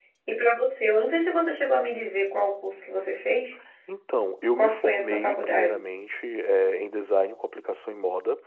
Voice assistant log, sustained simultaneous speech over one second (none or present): present